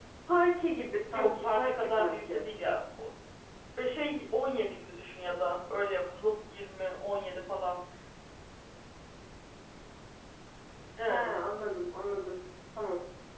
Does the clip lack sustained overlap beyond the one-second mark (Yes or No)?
No